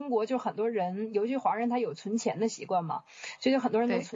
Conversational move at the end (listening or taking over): listening